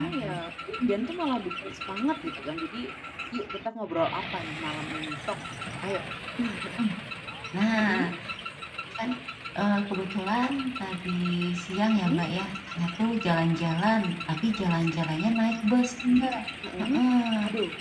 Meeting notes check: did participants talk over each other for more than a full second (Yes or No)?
No